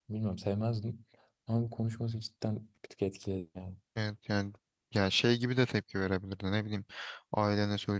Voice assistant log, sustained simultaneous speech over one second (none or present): none